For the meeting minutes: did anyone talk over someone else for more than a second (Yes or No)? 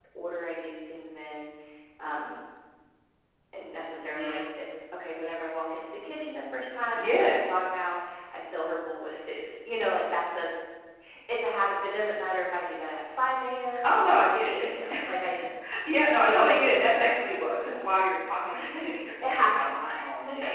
Yes